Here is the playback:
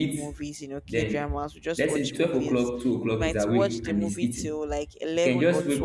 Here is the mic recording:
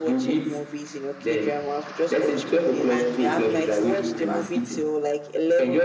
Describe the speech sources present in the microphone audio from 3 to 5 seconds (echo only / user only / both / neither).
both